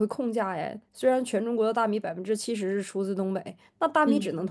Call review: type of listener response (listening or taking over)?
listening